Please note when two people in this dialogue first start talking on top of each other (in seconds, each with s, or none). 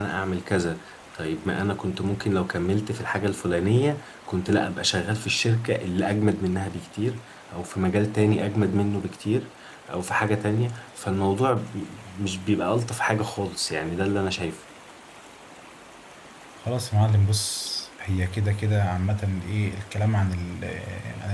none